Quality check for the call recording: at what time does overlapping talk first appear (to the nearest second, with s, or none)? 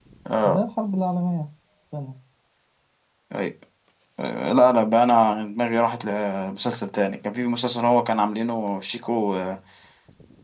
none